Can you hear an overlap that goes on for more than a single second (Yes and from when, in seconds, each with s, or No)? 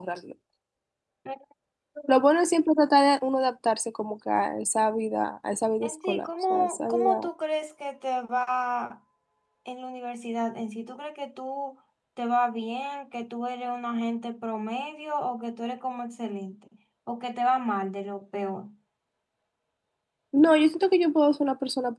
Yes, from 5.8 s